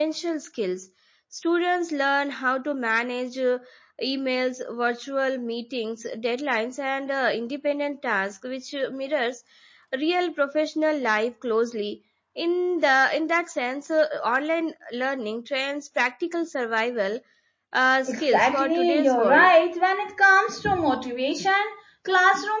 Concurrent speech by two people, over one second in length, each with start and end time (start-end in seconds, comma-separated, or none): 18.1-19.5